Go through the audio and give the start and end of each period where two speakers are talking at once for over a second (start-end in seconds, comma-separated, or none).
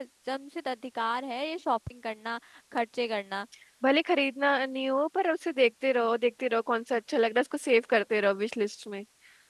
none